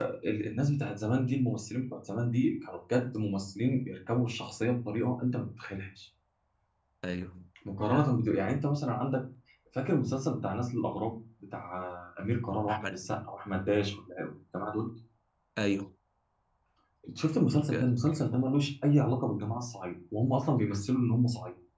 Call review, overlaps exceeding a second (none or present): none